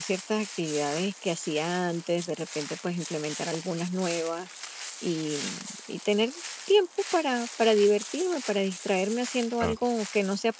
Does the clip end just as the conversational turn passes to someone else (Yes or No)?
No